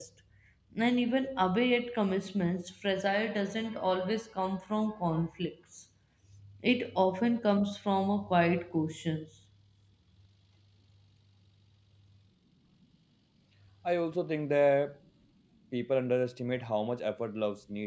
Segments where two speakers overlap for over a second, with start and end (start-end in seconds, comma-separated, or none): none